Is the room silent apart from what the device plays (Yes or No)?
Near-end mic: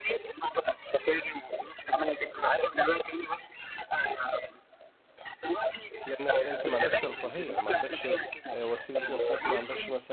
No